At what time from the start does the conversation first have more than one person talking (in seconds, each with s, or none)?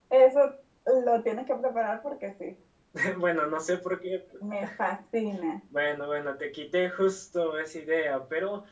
none